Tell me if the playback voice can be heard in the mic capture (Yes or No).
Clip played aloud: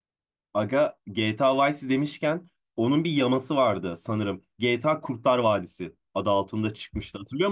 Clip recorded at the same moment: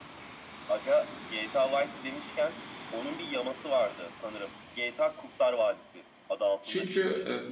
Yes